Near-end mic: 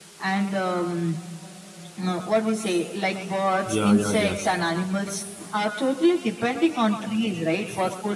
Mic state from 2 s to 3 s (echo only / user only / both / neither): echo only